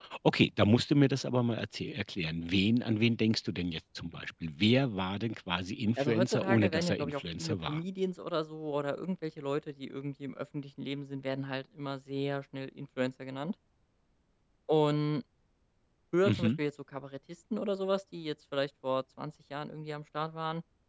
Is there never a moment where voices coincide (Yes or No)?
No